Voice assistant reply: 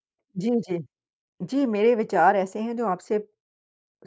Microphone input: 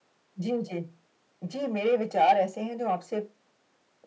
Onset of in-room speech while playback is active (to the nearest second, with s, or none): none